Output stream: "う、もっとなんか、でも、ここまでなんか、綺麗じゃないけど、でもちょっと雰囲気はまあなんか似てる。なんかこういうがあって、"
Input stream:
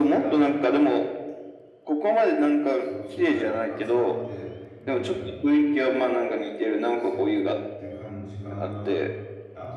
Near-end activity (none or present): present